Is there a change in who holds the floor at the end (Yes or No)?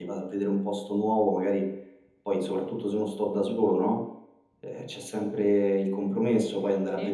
No